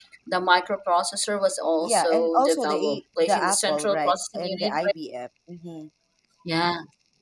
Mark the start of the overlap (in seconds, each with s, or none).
1.8 s